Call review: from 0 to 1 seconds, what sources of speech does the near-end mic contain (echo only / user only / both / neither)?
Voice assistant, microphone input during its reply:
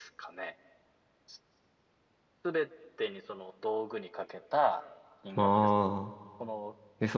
echo only